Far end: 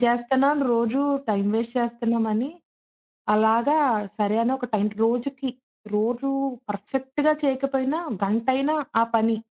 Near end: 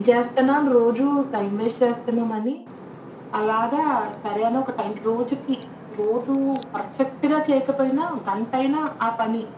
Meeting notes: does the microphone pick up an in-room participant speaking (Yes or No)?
No